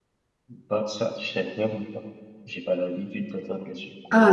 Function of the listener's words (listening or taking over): taking over